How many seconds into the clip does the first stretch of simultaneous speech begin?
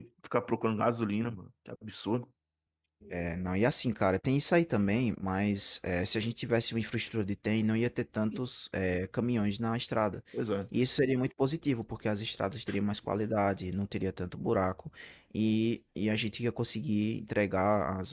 none

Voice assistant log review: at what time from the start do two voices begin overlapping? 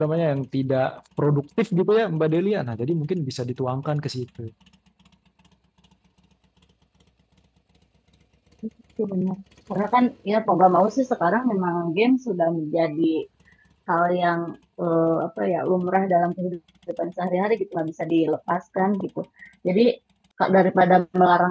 none

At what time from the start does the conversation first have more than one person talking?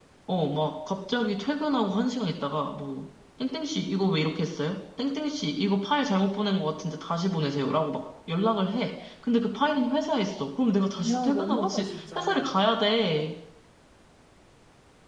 11.0 s

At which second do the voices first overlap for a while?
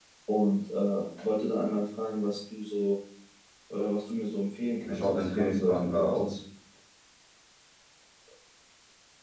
4.8 s

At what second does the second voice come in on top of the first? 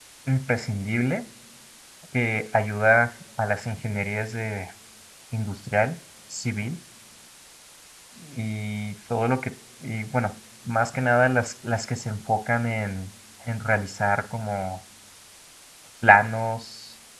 none

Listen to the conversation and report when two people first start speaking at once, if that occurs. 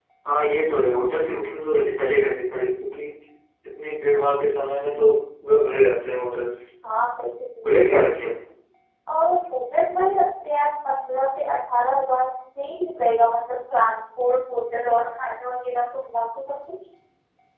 none

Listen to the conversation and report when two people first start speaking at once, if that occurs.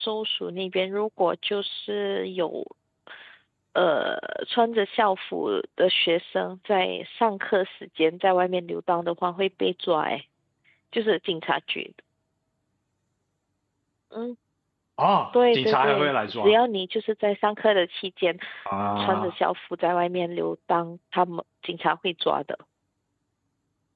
15.3 s

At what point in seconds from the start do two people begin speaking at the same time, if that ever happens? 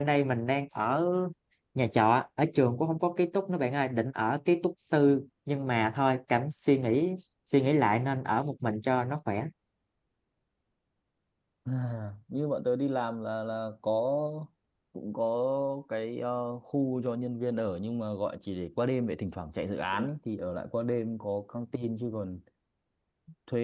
none

